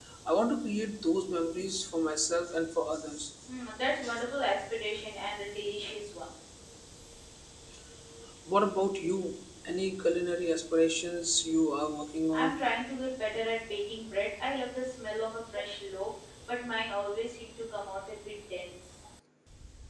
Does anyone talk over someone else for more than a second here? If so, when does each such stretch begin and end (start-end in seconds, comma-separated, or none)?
none